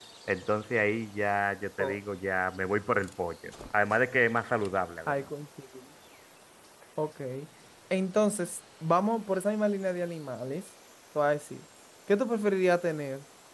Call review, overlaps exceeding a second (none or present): none